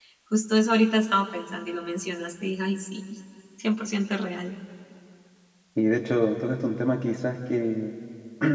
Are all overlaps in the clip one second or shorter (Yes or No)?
Yes